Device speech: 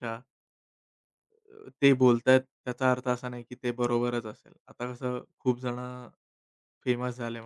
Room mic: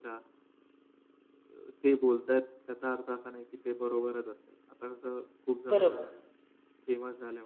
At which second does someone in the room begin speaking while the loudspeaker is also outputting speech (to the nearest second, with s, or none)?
6 s